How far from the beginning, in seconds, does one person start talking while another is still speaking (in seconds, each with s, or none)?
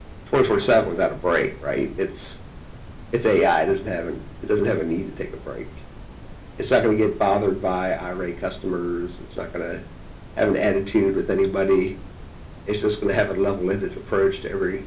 none